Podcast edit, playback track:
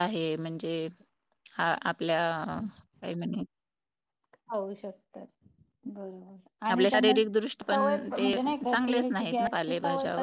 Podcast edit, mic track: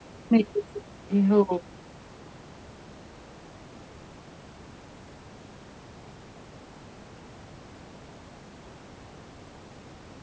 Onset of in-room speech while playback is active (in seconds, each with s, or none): 0.3 s